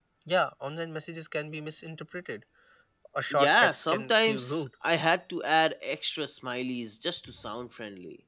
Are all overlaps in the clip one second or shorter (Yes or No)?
No